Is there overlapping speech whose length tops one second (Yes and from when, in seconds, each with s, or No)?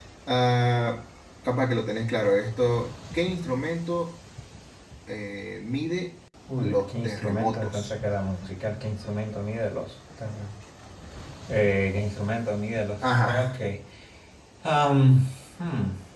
Yes, from 6.6 s